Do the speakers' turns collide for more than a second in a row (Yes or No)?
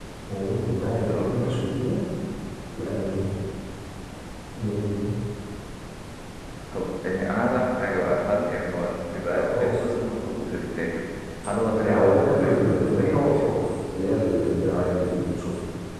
Yes